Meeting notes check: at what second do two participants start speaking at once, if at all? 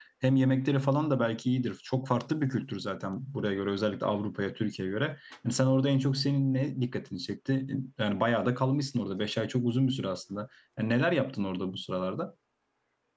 none

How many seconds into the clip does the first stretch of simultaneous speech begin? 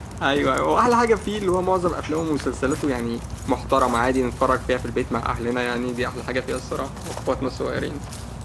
none

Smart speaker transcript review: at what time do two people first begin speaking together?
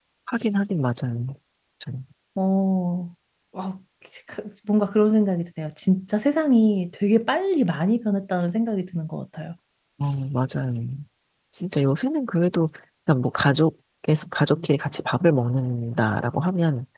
none

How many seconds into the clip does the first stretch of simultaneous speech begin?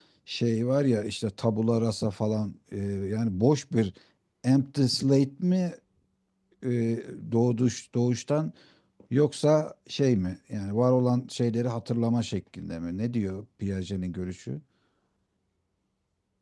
none

